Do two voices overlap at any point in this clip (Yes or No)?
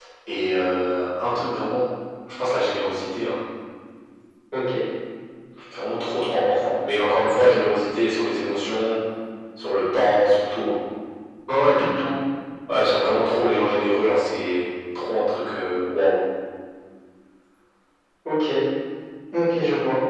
No